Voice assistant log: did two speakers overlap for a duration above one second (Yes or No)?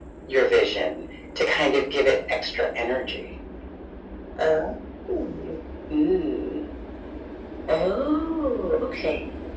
No